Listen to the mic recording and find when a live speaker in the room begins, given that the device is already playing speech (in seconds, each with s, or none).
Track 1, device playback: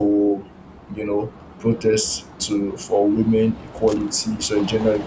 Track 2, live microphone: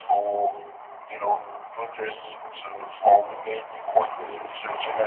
4.1 s